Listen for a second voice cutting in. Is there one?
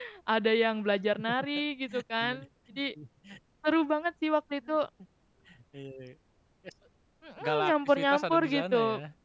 Yes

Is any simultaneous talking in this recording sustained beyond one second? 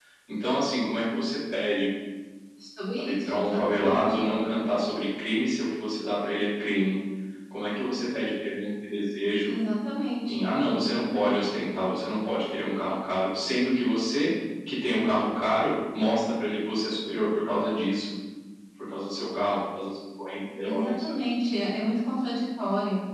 Yes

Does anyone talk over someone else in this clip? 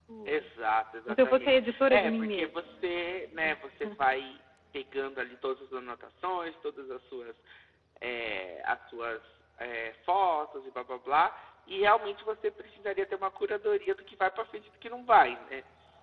Yes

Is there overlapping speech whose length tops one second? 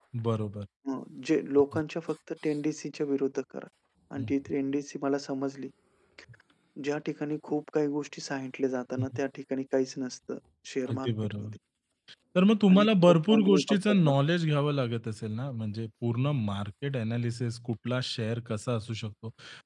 Yes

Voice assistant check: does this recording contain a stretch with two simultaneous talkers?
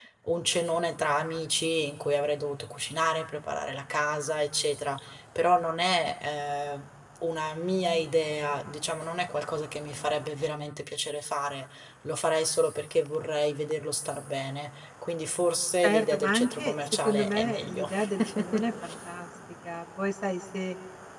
Yes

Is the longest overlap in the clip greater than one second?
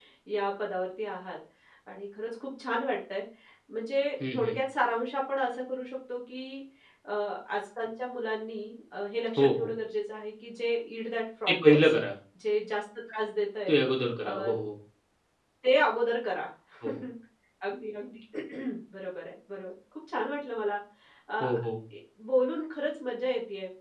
No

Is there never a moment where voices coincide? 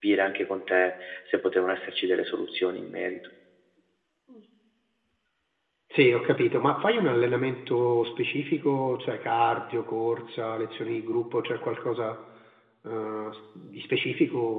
Yes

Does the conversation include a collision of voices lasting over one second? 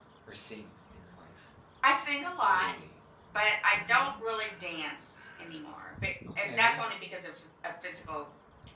No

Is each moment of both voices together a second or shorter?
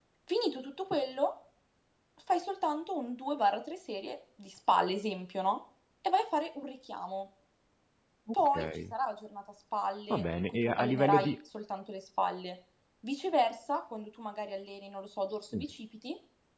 No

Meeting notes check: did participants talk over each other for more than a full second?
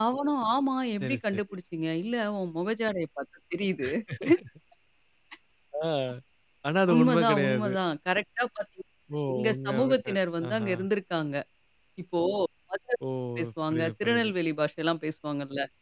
Yes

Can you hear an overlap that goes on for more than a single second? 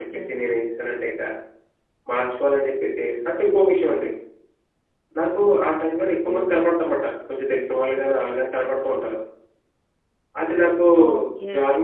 No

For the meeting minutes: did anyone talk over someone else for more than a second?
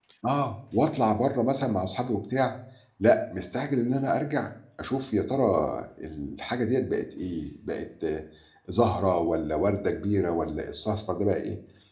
No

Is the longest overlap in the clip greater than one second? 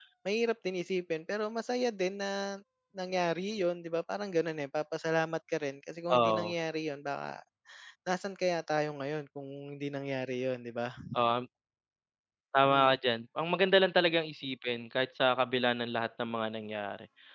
No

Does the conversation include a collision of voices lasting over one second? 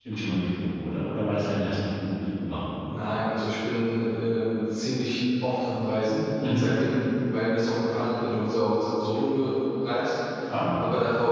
No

